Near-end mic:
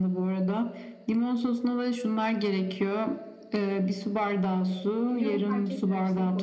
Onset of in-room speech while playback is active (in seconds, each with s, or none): 5.1 s